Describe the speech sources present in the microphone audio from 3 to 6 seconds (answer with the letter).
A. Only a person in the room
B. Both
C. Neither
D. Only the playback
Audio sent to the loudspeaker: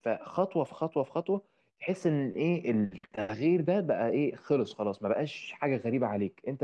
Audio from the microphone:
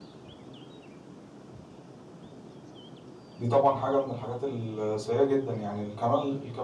A